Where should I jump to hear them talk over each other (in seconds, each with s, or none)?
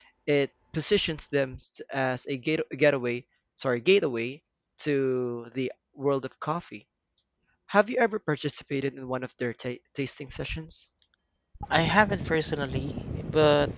none